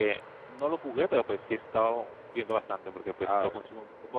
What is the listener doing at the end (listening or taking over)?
listening